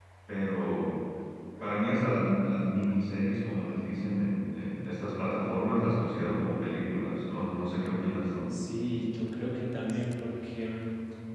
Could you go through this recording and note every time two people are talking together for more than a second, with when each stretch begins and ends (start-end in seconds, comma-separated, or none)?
none